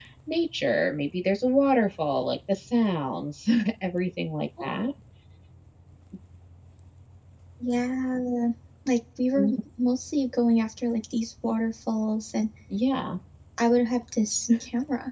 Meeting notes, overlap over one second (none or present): none